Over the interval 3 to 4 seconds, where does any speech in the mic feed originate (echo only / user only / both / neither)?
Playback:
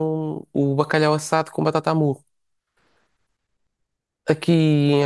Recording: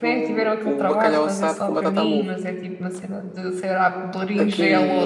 user only